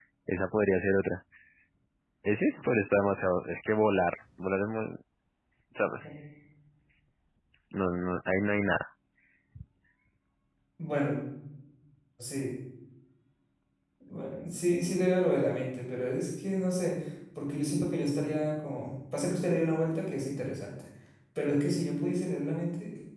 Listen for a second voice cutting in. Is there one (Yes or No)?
No